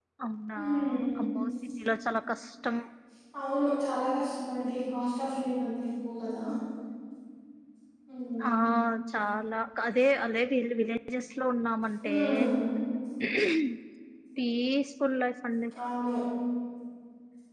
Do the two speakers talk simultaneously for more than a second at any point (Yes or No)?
No